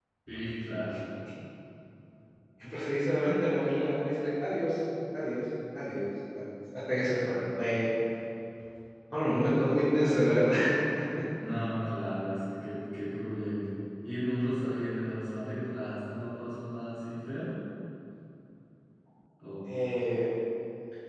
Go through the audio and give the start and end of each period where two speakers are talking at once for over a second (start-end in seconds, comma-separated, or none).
none